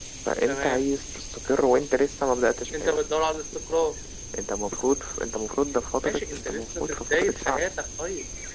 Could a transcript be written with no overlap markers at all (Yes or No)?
No